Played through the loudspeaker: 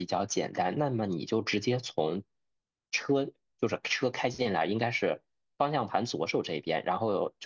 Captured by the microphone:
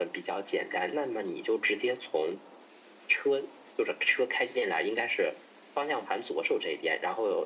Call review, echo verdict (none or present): present